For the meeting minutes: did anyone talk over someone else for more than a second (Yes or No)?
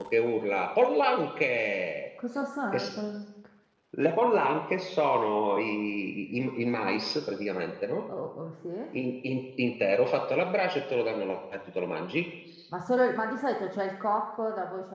No